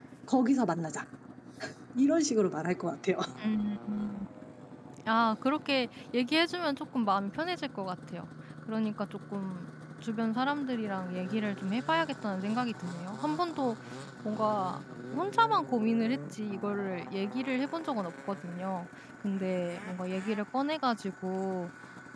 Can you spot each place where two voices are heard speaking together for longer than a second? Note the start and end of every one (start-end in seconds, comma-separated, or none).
none